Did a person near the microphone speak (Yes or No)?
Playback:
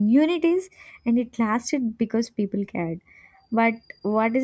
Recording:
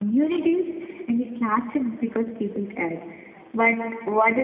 No